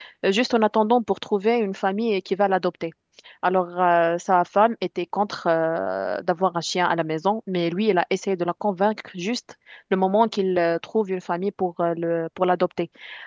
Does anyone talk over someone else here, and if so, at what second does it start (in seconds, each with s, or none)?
none